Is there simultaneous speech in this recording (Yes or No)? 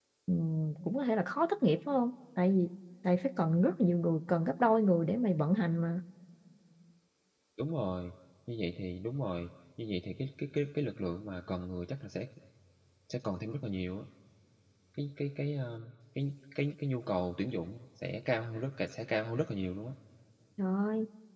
No